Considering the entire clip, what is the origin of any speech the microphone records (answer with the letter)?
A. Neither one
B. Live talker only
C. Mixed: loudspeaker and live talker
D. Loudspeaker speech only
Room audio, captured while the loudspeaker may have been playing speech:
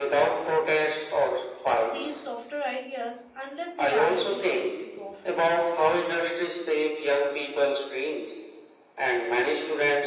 C